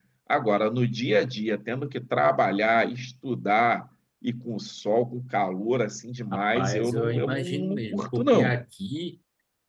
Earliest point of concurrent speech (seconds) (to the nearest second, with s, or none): 7 s